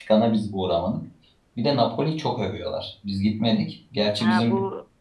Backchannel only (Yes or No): No